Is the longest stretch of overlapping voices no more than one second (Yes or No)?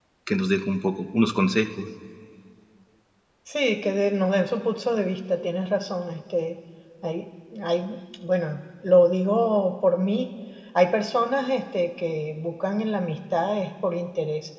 Yes